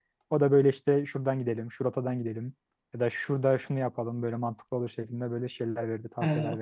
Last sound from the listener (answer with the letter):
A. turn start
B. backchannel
A